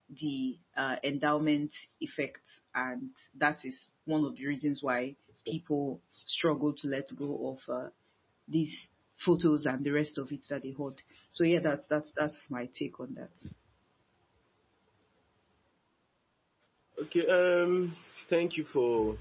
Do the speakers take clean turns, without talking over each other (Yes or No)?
Yes